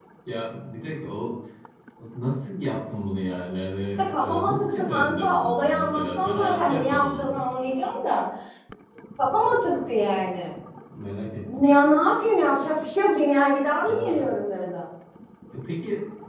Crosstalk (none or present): present